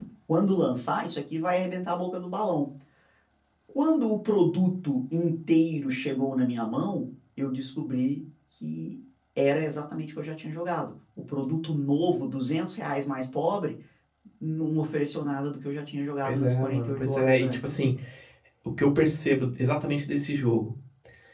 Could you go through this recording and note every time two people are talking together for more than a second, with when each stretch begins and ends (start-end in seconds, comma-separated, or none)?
16.2-17.6